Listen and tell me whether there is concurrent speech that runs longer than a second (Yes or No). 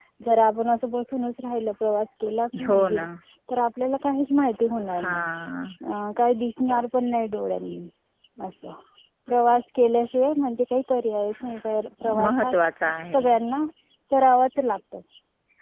No